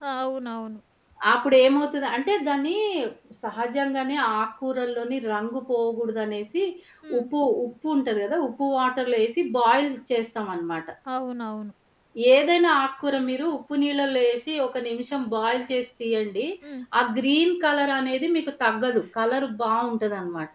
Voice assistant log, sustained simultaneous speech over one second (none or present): none